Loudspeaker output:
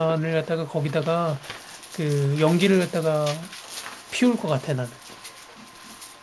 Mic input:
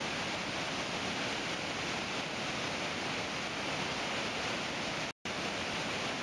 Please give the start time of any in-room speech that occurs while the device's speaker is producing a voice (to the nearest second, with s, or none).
none